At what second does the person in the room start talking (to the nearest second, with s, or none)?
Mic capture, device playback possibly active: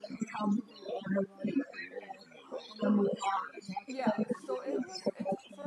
4 s